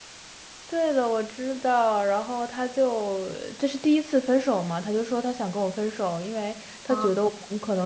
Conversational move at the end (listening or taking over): listening